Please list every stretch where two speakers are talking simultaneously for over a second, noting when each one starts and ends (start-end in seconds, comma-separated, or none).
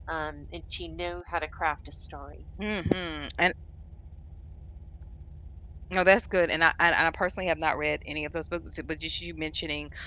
none